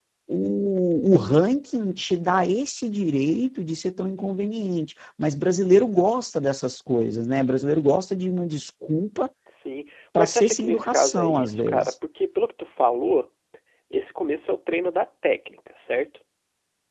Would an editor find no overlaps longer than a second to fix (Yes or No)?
No